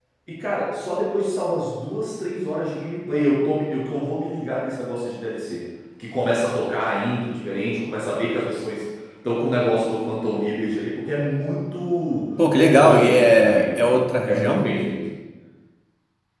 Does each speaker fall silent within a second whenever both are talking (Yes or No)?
No